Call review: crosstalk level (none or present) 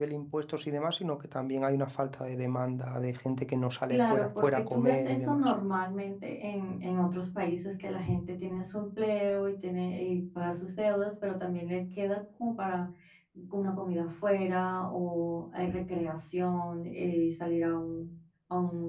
present